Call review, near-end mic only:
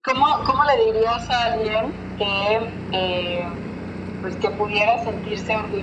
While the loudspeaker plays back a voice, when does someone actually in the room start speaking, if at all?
none

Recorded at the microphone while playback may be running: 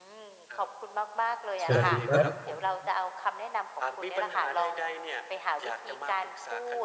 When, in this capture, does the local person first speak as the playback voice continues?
1.6 s

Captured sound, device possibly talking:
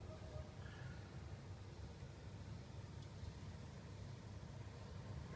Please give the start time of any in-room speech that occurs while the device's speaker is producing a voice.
none

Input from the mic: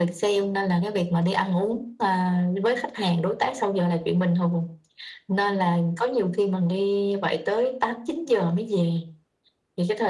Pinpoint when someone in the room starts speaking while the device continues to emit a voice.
none

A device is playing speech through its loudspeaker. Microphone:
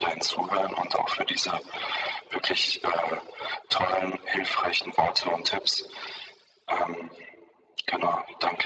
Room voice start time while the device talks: none

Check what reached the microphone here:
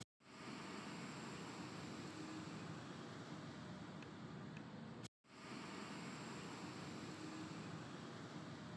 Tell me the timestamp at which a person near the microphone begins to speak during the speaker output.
none

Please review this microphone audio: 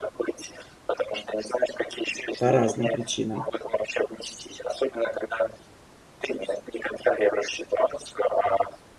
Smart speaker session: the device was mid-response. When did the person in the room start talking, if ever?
2.4 s

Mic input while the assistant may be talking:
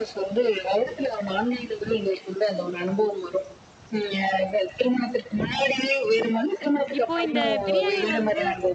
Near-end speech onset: 7.0 s

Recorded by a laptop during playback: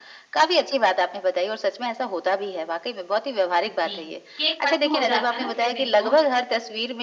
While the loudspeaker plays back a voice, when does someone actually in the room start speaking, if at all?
3.7 s

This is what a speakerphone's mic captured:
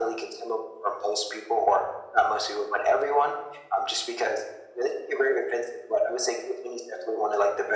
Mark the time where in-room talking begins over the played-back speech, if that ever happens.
none

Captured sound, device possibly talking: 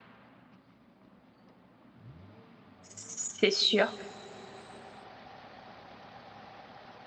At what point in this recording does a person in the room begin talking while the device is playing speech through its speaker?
2.9 s

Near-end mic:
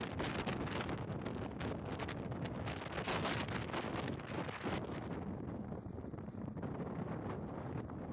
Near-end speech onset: none

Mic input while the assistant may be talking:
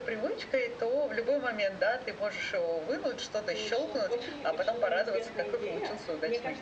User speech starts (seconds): 3.5 s

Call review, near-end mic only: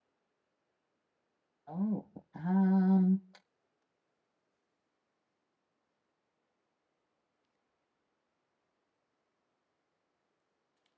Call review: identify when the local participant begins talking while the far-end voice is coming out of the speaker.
1.7 s

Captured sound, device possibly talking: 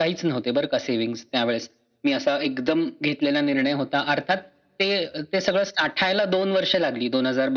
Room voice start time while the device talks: none

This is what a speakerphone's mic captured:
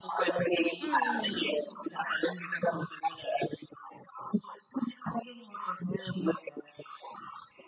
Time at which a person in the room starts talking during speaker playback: 0.8 s

